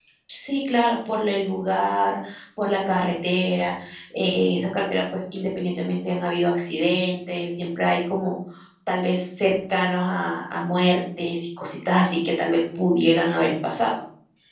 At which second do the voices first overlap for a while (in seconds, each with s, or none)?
none